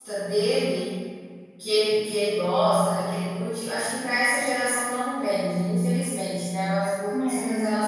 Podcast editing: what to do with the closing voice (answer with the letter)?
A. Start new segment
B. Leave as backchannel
B